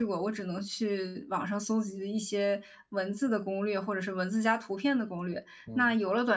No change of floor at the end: Yes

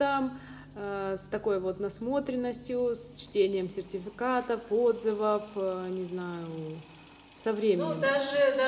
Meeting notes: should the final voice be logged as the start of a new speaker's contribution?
Yes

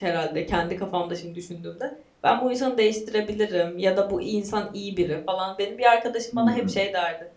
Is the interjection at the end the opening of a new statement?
No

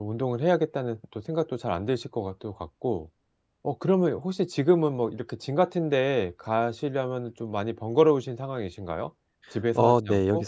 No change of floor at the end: No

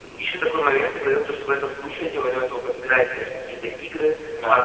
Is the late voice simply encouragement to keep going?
Yes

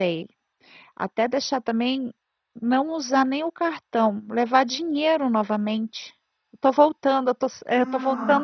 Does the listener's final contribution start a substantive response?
Yes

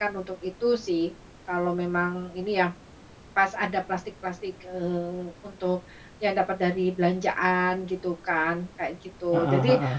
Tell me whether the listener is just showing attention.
Yes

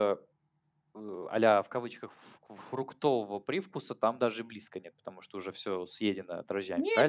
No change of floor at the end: No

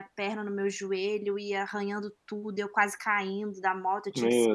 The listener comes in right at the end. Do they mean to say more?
No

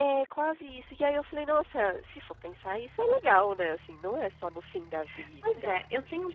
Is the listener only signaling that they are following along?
No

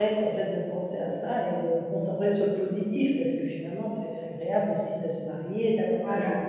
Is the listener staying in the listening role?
Yes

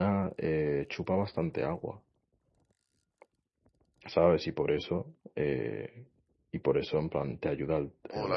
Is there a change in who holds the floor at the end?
Yes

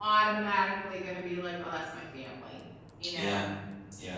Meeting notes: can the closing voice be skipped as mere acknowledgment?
No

